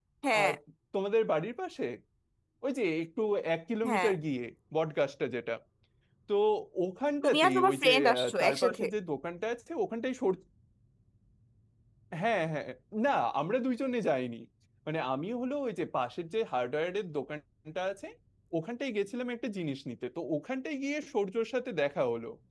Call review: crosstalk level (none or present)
present